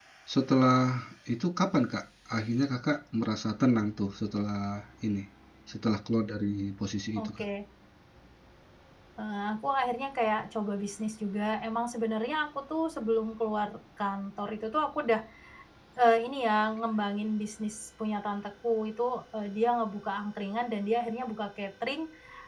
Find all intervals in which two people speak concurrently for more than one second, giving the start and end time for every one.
none

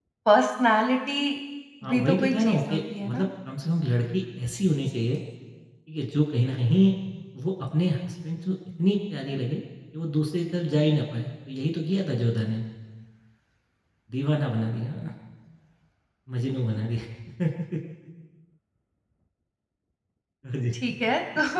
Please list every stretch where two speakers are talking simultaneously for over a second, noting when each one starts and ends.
1.9-3.3

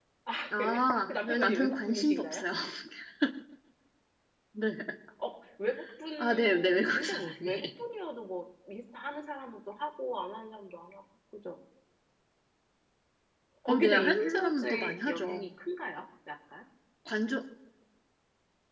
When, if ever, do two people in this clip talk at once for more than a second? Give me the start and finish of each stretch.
0.5-2.4, 6.2-7.7, 13.7-15.5

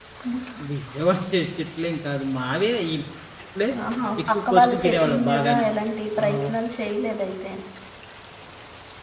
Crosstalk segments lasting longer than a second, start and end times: 4.3-5.6

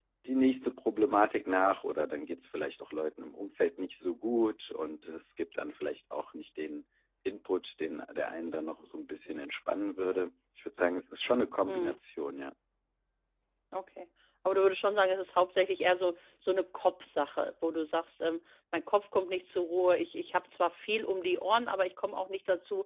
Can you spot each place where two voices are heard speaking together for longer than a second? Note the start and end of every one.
none

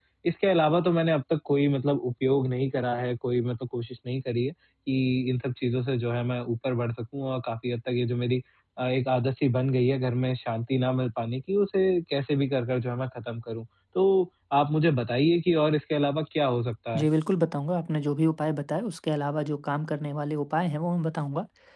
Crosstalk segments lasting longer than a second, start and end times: none

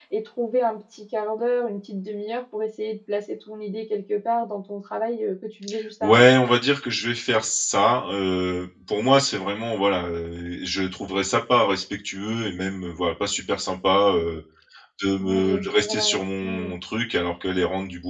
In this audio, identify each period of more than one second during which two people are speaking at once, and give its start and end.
15.2-16.7

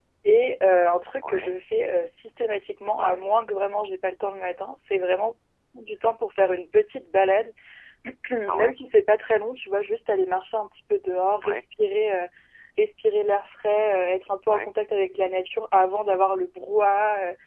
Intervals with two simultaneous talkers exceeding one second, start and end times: none

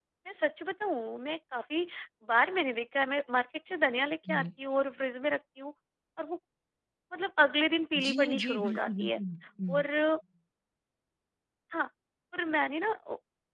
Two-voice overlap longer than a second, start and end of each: 8.0-9.2

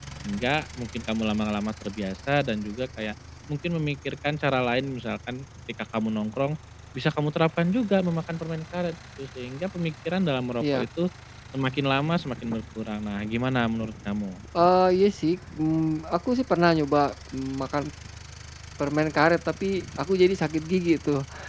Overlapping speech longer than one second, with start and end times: none

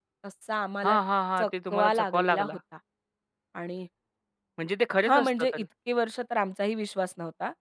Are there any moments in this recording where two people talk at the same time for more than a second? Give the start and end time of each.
1.4-2.6

